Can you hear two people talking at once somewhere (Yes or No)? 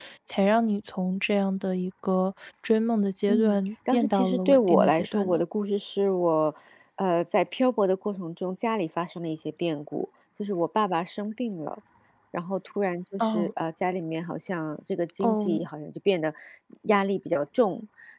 Yes